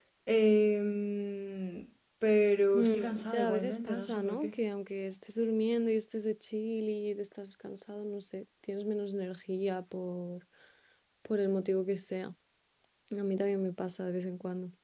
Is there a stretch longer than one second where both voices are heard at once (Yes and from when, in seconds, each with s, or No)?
Yes, from 2.7 s